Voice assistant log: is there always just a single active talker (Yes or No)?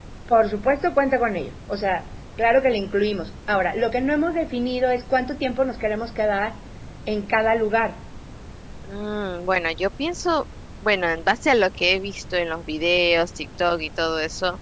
Yes